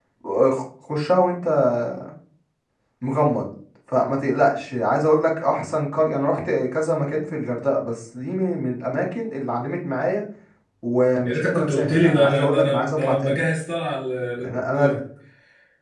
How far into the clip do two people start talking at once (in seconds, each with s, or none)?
11.2 s